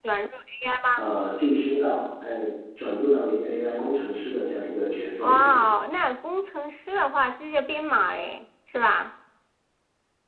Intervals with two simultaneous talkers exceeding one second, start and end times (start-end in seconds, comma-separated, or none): none